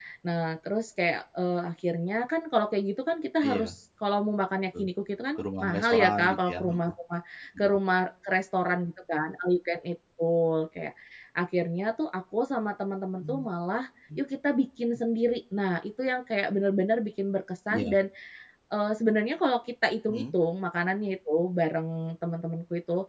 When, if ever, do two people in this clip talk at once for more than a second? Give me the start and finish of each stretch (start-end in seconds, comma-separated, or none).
5.4-6.8